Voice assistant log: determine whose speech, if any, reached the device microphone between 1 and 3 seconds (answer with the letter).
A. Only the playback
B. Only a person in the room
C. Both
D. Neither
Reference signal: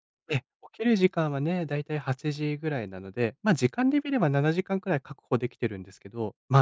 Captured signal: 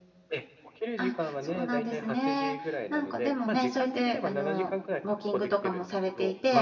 C